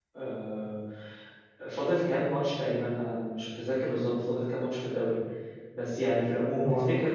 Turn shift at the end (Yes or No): No